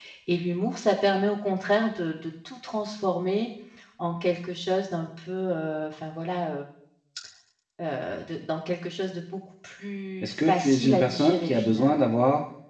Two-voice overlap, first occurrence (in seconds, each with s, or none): 10.2 s